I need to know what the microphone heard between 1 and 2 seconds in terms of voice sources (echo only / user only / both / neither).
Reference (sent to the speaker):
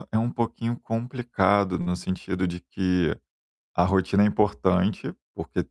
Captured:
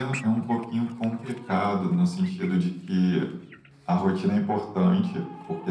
echo only